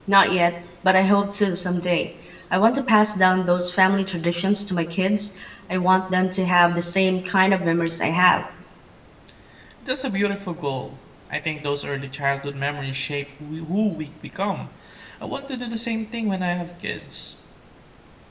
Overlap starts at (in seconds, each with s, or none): none